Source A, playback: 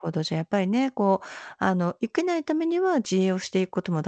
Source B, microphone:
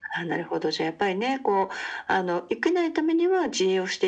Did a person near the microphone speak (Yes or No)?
No